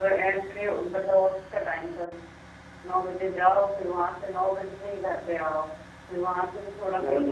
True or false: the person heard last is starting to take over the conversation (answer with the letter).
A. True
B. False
B